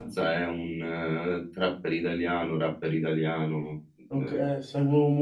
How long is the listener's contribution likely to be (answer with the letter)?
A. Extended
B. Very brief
A